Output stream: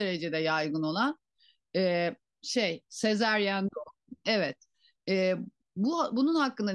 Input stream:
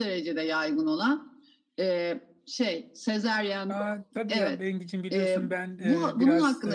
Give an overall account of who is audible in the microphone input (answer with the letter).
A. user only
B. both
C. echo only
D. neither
B